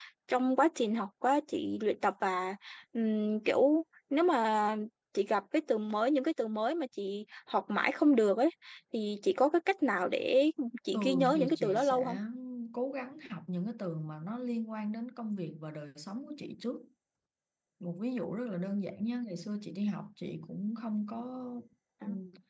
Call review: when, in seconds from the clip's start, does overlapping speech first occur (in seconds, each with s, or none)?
10.9 s